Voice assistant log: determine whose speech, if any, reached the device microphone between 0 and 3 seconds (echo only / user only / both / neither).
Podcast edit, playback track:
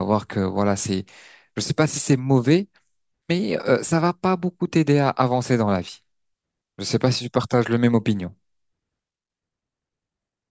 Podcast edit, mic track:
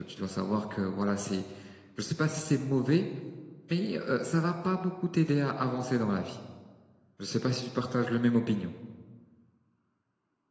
echo only